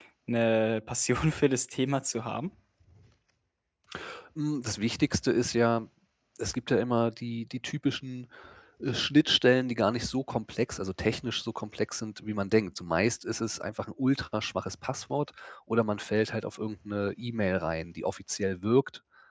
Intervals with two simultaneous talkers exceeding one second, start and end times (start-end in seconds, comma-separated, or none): none